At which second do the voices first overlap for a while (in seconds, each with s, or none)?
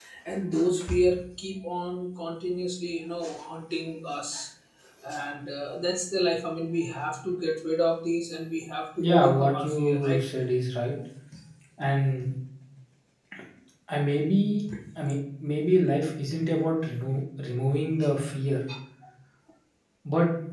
9.0 s